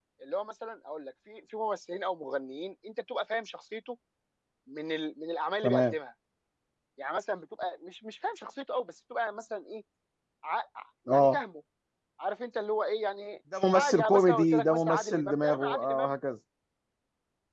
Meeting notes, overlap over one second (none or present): present